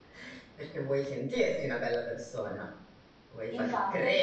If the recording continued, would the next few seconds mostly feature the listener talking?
Yes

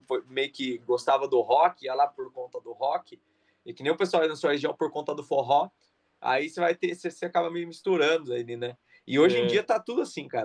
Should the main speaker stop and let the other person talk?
No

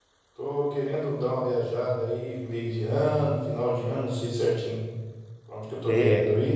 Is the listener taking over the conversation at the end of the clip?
No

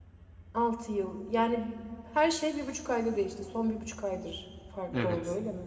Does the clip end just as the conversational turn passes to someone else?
Yes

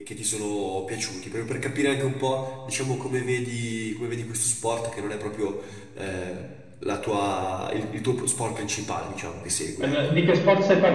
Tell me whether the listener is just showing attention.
No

